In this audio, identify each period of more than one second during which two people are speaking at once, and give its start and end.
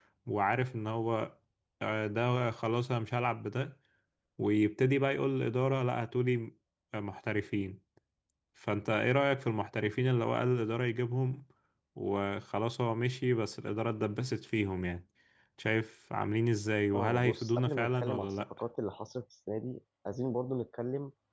16.9-18.4

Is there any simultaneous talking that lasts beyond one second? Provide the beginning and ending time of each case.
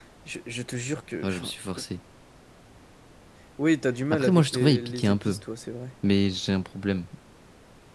4.1-5.4

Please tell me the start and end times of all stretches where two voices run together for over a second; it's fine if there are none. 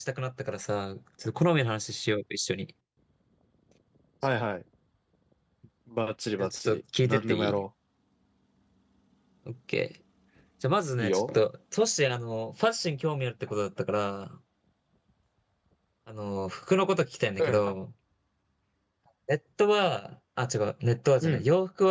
6.4-7.6

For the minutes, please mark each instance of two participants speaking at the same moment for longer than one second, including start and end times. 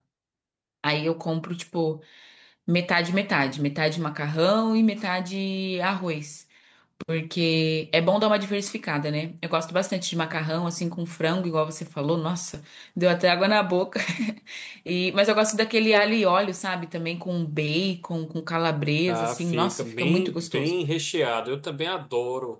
19.1-20.7

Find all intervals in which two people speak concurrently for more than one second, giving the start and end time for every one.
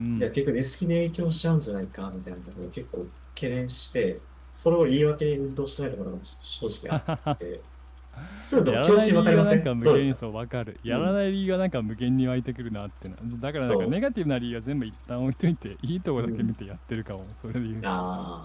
8.6-10.2

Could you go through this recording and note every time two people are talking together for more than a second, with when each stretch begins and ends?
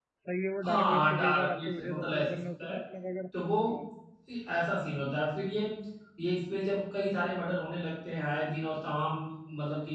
0.6-2.8

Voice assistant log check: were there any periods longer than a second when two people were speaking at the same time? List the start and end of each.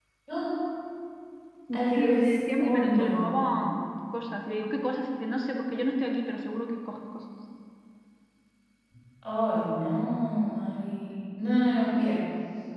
1.7-3.6

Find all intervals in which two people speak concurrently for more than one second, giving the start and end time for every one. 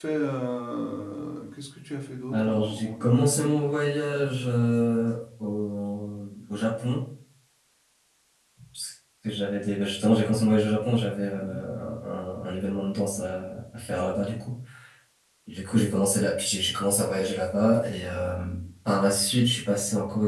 2.3-3.5

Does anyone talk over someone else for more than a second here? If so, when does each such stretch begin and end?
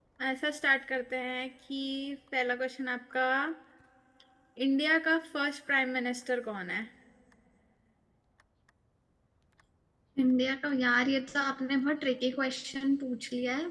none

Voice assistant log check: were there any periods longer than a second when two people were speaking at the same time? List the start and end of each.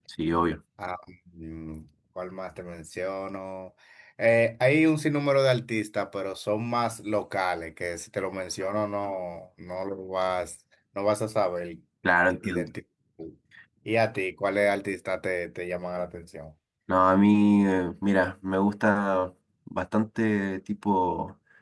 none

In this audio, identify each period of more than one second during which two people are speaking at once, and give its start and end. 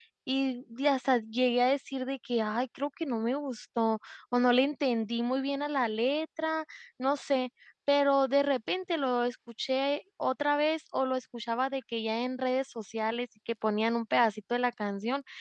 none

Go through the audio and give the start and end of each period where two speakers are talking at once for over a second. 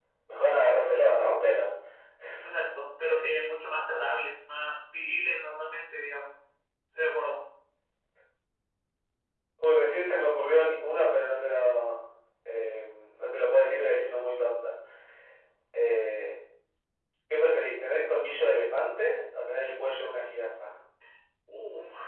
none

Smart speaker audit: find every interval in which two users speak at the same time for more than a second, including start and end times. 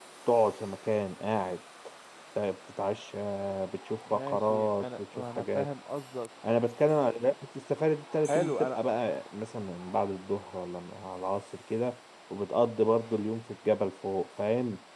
4.1-5.7

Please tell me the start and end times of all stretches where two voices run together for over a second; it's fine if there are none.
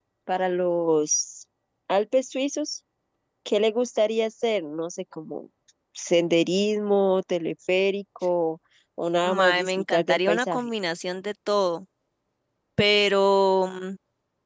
9.2-10.7

